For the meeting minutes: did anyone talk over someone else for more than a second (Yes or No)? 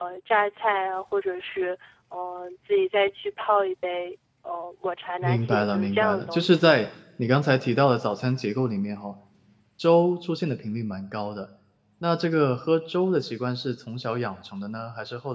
Yes